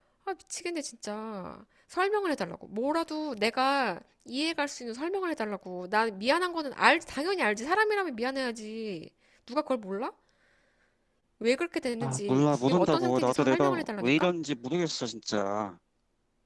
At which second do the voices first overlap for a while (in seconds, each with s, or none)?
12.0 s